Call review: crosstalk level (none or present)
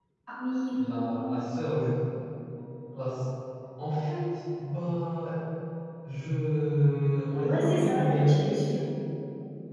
present